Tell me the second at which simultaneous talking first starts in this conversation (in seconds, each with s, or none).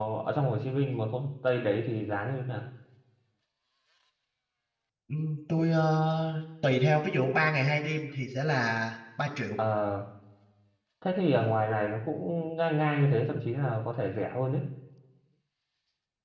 none